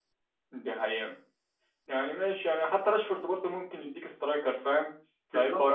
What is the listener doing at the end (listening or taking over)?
listening